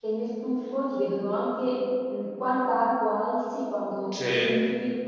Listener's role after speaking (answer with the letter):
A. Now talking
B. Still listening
B